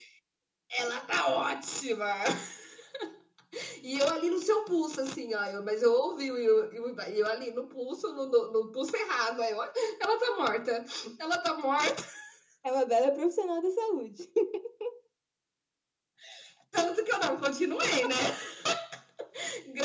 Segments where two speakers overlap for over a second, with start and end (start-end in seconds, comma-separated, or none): none